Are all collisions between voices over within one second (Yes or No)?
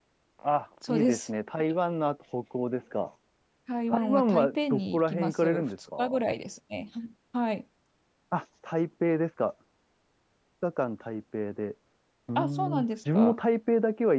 No